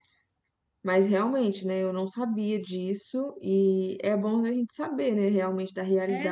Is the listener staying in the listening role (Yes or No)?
No